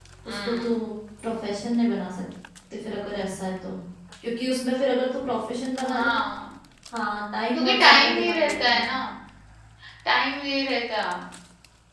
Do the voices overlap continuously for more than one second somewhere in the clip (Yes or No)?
Yes